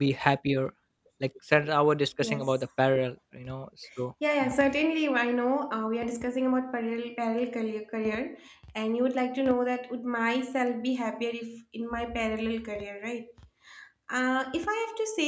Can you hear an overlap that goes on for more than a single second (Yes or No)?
No